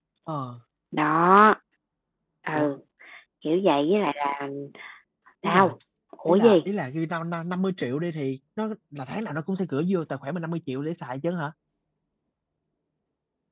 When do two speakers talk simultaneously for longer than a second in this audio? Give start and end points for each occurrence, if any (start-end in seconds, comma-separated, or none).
none